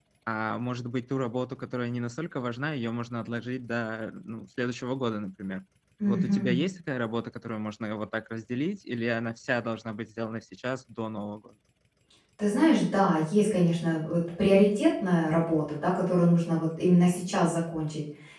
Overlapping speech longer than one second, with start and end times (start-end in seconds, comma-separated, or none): none